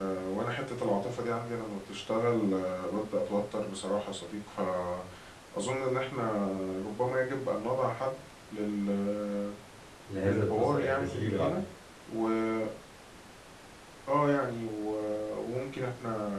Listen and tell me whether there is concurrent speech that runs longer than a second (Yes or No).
Yes